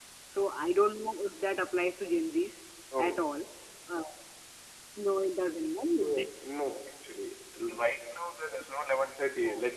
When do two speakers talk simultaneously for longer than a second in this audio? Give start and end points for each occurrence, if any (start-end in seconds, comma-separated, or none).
none